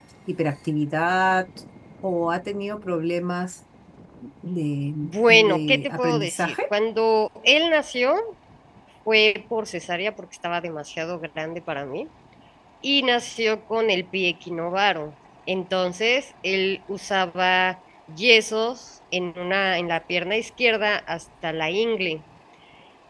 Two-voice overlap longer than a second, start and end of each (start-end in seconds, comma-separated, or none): 5.0-6.5